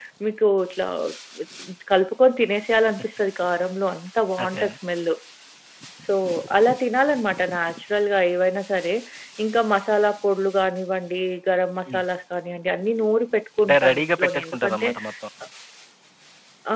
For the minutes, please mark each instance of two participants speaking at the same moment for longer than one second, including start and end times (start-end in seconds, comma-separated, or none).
13.6-14.9